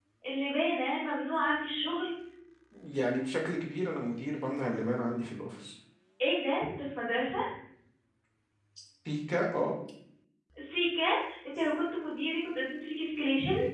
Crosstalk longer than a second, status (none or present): none